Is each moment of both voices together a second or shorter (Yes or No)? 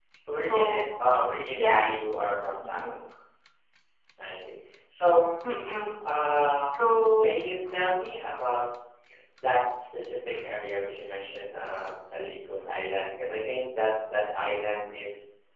Yes